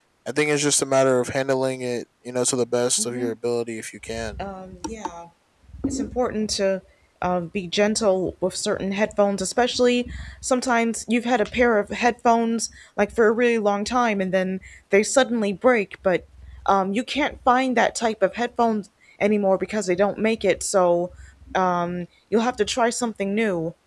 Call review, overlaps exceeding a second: none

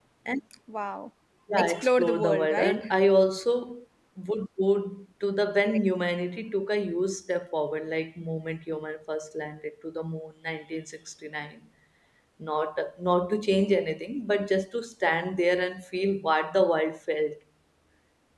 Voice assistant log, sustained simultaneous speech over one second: present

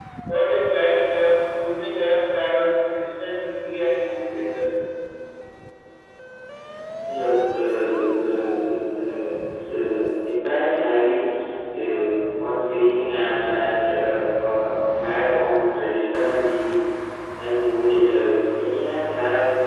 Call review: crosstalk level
none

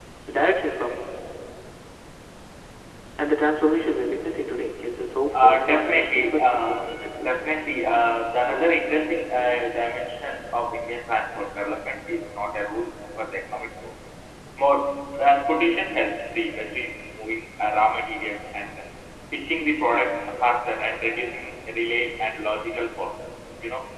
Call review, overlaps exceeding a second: present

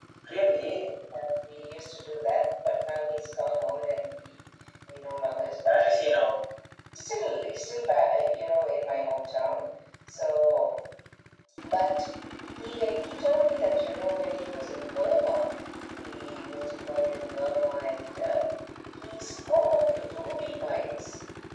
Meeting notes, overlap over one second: none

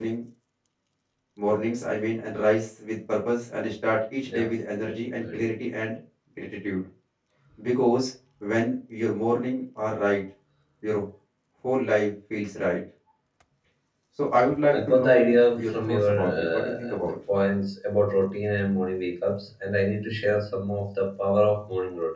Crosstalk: present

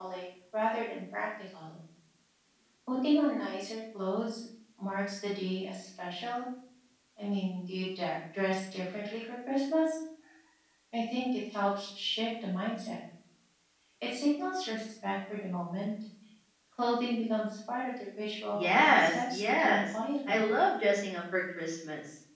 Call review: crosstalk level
present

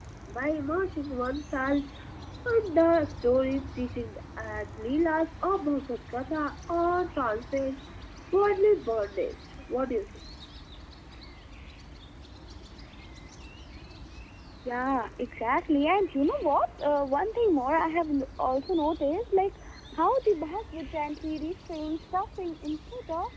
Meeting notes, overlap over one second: none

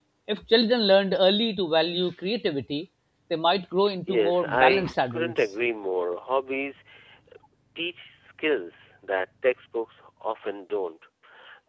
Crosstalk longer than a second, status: present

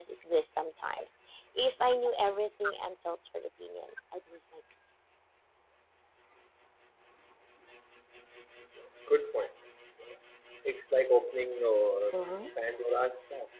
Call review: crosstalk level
none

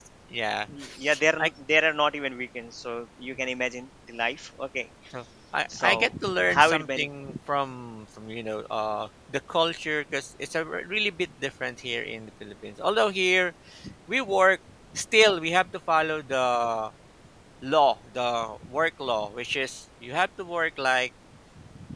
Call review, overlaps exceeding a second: present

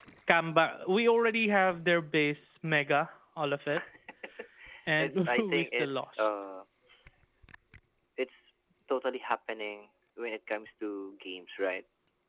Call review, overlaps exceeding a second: present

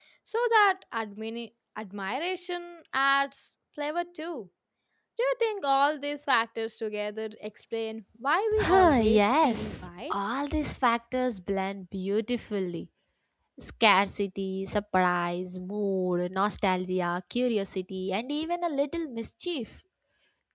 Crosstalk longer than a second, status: present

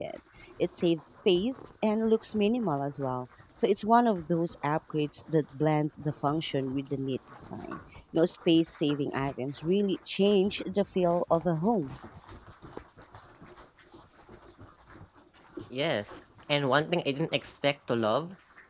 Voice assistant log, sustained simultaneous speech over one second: none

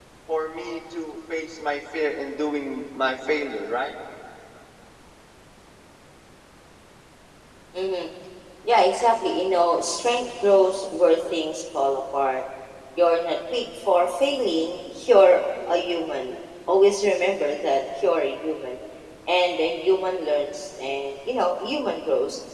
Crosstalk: none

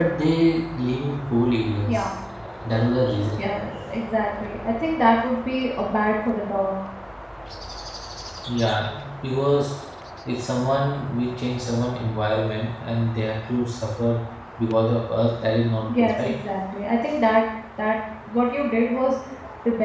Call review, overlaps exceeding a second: none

